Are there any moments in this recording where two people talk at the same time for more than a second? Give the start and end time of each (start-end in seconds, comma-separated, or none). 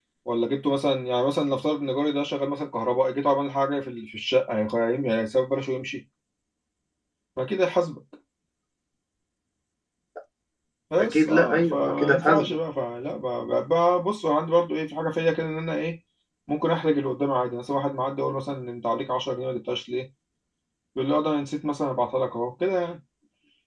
11.0-12.6